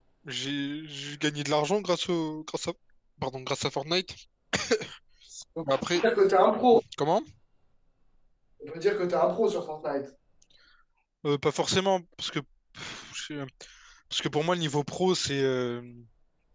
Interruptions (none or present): none